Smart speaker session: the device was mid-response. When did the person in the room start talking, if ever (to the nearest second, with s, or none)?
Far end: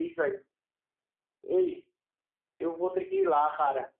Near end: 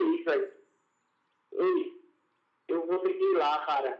none